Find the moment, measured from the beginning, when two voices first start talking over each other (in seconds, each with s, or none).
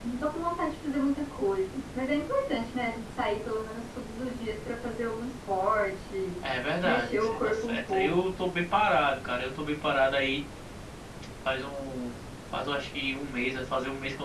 6.8 s